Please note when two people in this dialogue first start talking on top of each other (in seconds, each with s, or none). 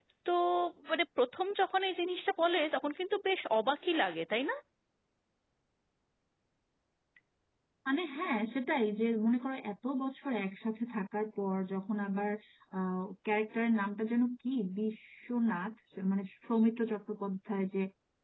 none